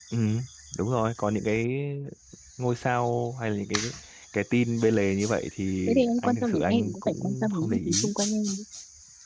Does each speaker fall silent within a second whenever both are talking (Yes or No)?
No